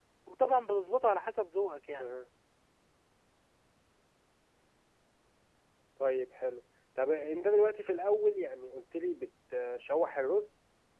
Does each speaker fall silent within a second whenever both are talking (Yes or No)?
Yes